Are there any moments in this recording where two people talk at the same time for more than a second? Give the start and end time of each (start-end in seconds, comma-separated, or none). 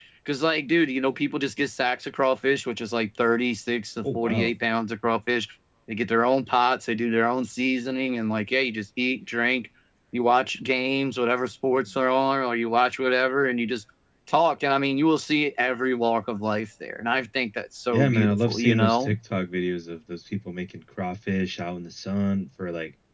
17.9-19.1